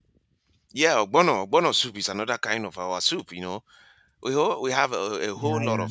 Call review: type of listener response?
listening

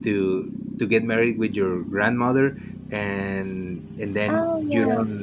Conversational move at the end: listening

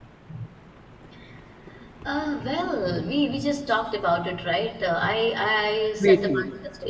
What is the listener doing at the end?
listening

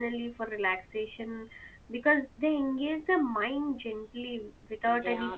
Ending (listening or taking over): listening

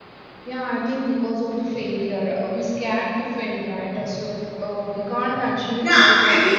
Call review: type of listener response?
taking over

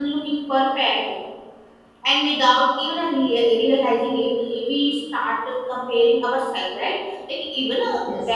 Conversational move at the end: listening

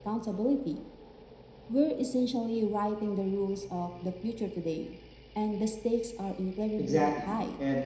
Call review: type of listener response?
taking over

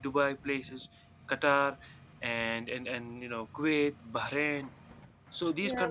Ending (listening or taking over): taking over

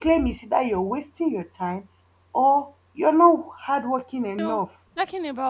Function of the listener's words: taking over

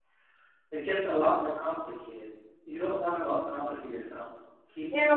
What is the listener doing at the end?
taking over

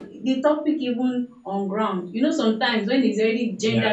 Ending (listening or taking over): listening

